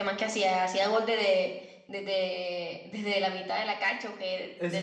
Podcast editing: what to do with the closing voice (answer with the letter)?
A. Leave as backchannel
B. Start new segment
B